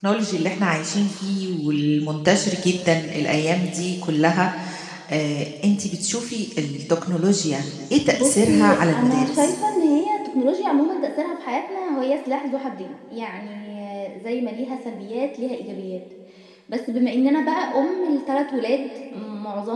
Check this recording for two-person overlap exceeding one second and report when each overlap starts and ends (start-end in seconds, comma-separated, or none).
8.1-9.5